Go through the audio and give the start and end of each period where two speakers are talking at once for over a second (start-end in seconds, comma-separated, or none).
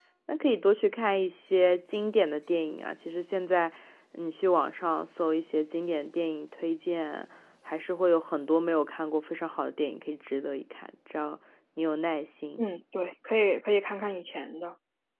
none